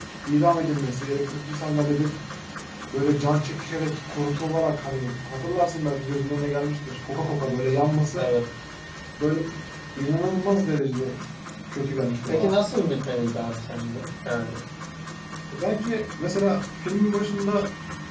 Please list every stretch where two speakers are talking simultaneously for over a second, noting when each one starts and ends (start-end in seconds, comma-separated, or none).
none